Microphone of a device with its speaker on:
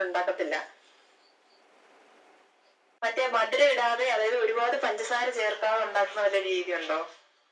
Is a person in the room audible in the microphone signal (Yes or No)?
No